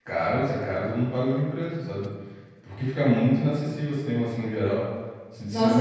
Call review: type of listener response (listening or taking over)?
taking over